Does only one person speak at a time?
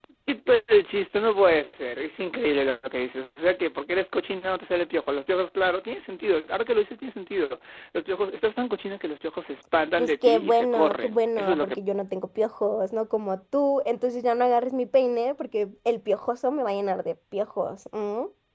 No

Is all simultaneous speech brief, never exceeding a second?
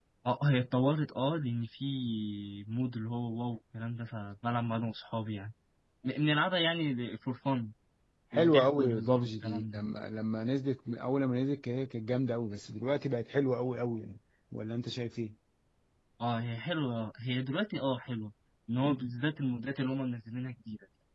No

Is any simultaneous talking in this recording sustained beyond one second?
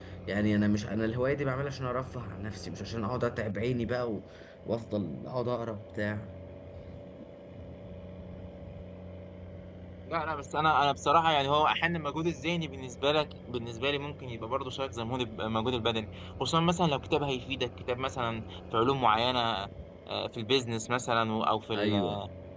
No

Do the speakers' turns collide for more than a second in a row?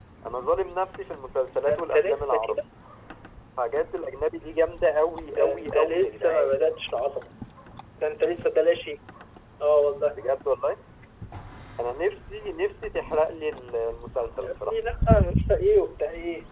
Yes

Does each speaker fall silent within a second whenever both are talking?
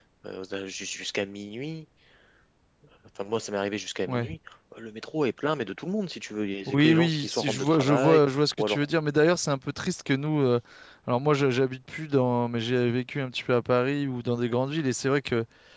No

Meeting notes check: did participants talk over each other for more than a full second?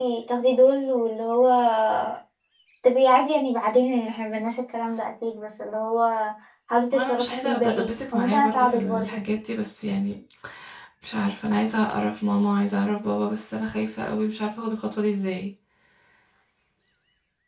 Yes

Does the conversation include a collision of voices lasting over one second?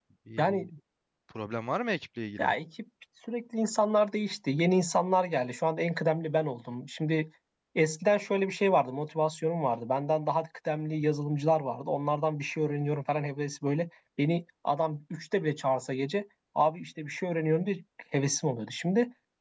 No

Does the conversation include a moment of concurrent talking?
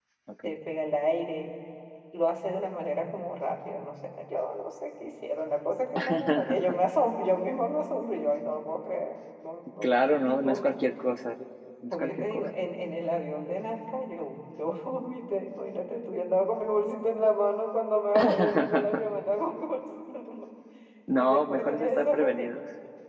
Yes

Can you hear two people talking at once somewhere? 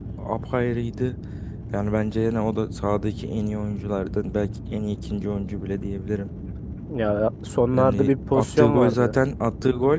Yes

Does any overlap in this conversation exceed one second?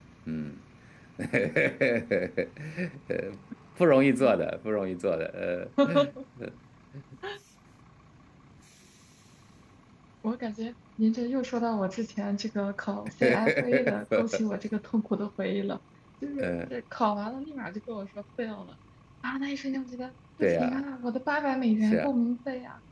Yes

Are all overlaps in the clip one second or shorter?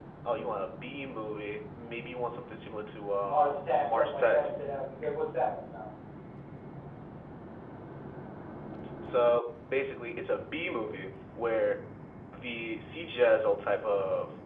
No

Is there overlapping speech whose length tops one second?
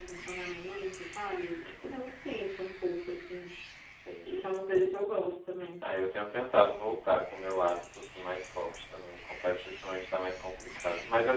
No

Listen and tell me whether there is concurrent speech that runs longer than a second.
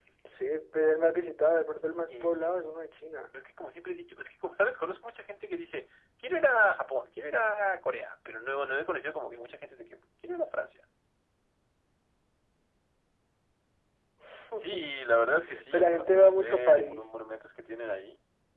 Yes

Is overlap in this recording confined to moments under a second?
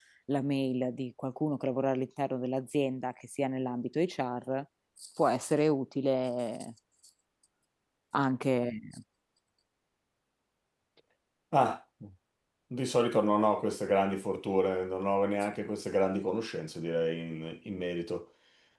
Yes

